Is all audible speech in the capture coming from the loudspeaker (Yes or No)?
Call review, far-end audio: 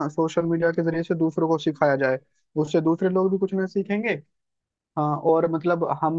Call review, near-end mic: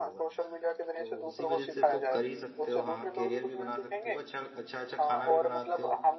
No